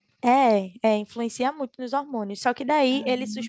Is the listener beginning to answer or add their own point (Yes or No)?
No